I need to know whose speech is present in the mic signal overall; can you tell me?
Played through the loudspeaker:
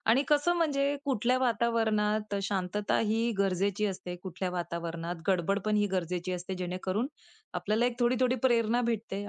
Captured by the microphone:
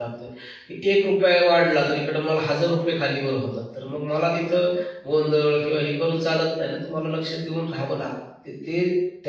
user only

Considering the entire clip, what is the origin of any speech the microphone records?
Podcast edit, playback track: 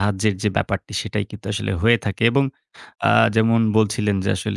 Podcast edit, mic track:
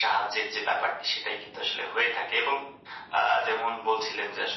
echo only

